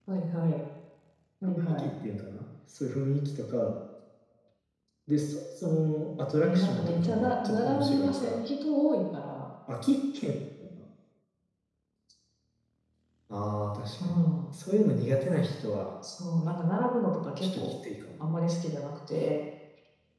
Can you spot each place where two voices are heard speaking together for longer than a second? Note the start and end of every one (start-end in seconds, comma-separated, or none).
6.4-8.4